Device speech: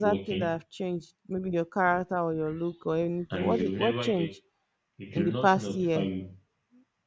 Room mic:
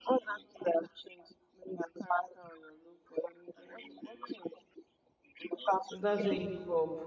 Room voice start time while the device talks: 6 s

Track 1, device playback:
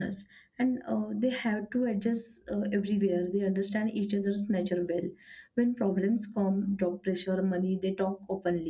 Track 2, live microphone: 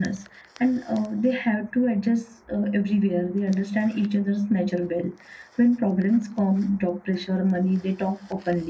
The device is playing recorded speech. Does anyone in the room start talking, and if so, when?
none

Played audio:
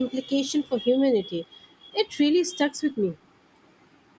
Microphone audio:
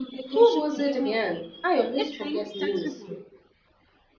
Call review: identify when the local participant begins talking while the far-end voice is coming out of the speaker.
0 s

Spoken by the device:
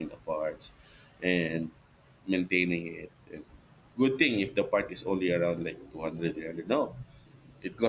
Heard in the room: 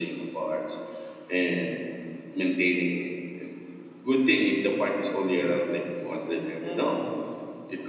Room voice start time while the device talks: 7 s

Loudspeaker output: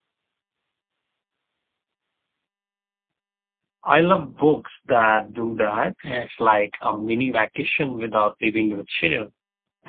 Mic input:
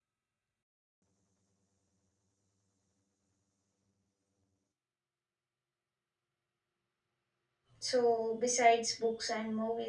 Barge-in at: 8 s

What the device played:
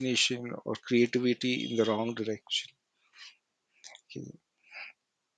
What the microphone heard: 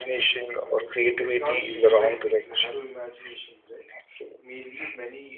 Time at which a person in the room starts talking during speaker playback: 1 s

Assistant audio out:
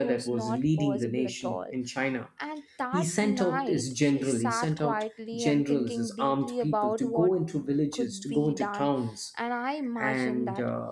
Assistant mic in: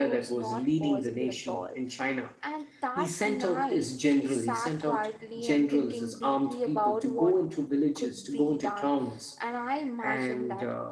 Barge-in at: none

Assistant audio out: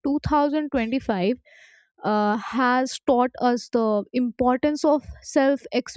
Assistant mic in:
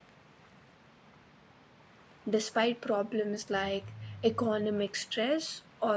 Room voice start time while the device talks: 2 s

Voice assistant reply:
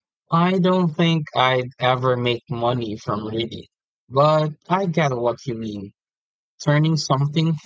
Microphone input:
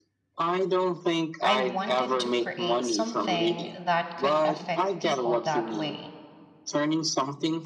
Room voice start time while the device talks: 1 s

